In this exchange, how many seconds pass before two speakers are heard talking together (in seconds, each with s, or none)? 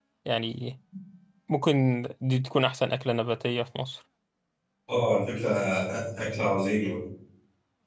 none